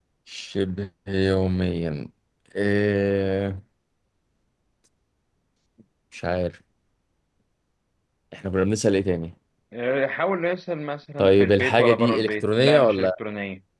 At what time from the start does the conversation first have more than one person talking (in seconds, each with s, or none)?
11.2 s